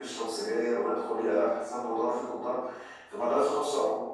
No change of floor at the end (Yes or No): Yes